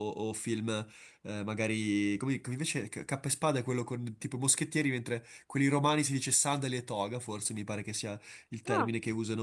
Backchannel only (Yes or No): Yes